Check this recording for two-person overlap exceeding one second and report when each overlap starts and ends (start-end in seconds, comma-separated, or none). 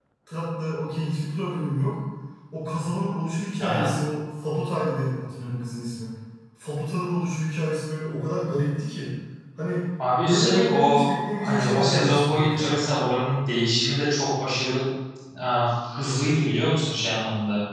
10.2-12.7